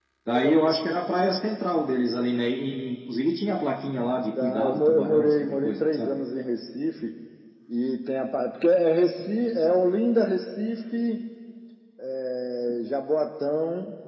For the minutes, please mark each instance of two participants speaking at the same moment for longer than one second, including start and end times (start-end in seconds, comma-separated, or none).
4.4-6.2